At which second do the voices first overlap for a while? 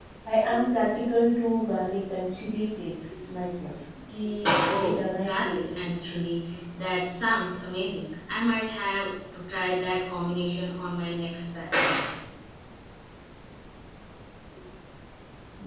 4 s

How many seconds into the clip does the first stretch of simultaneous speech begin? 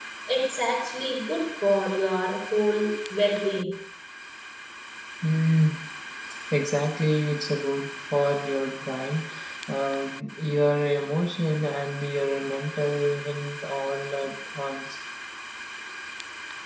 none

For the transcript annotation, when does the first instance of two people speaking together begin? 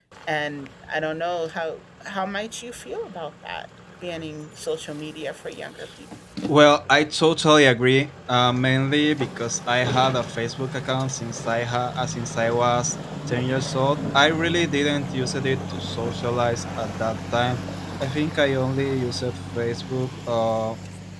none

